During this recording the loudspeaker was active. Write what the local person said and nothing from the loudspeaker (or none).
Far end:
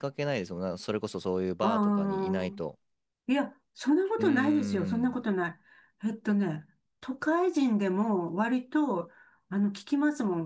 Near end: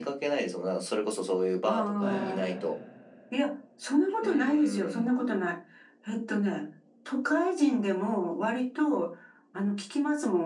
はい、